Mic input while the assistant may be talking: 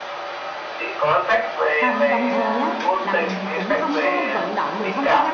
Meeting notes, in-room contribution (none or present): present